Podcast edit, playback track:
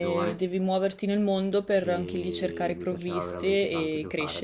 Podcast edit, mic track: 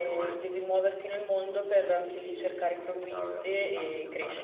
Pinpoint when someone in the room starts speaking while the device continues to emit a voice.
none

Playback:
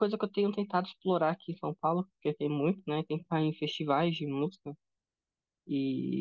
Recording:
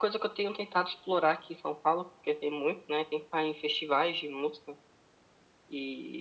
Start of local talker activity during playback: none

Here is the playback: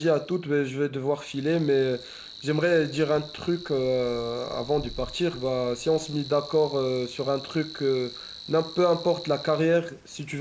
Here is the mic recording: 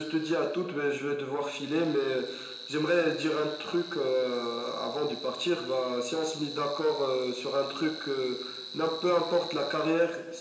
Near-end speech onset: none

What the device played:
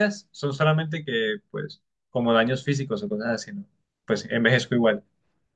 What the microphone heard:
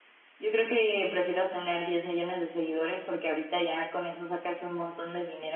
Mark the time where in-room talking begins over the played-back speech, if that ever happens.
0.4 s

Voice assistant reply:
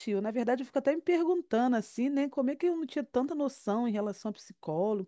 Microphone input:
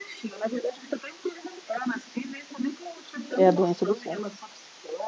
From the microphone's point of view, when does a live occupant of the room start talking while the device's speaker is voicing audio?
3.4 s

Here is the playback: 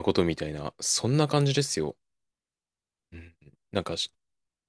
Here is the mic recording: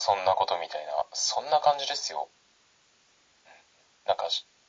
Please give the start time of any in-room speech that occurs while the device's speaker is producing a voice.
none

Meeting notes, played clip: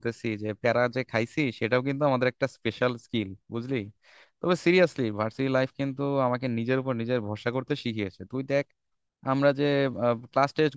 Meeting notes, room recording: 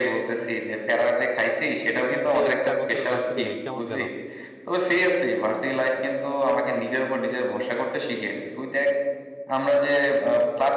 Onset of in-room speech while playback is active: 2.1 s

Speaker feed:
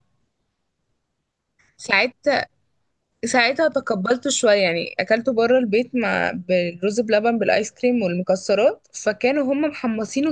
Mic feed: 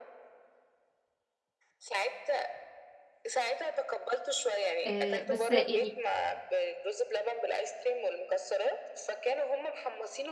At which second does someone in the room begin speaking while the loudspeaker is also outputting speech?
4.8 s

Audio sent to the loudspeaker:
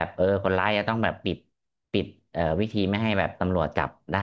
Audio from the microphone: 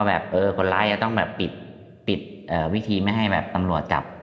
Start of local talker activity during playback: none

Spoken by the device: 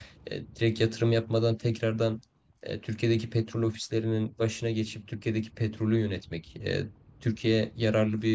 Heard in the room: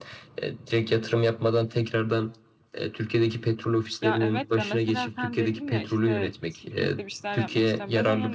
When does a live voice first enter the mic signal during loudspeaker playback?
4.0 s

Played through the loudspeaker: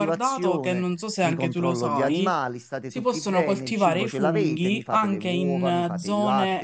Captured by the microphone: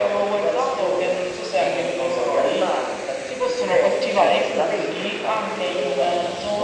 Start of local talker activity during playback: none

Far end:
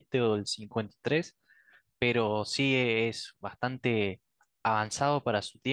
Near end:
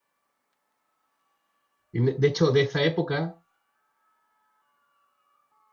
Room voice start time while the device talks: 1.9 s

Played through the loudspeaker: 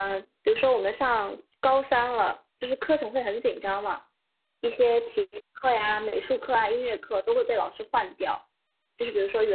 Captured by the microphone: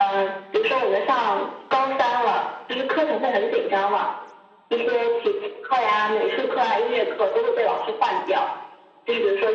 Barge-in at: none

